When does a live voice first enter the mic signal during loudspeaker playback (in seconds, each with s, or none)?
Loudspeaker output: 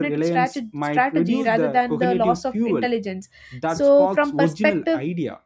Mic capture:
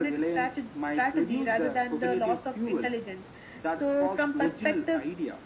none